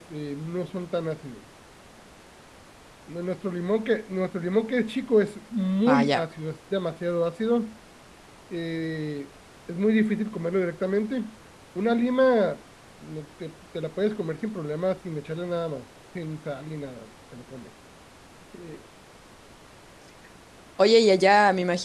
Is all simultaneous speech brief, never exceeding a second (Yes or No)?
Yes